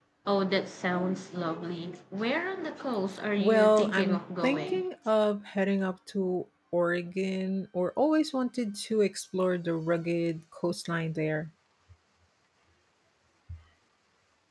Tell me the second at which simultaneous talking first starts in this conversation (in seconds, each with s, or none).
3.4 s